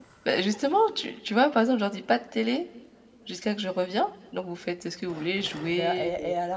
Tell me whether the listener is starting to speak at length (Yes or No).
Yes